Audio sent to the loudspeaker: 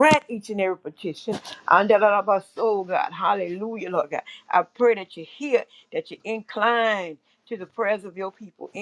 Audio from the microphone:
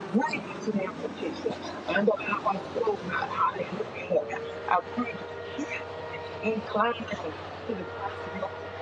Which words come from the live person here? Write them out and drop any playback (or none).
none